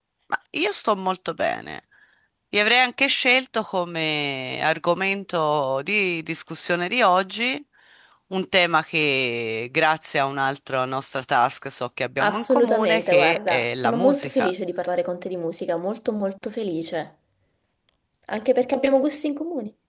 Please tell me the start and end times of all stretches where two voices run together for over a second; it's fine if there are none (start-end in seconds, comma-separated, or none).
12.2-14.5